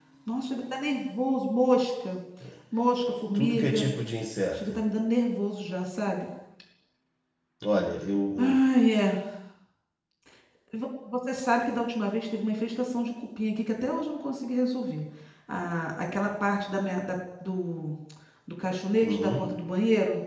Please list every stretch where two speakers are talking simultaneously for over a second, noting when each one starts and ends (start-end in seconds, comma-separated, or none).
none